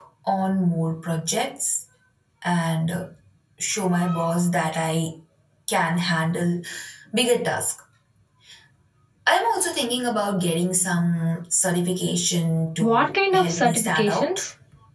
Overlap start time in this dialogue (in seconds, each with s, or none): 12.8 s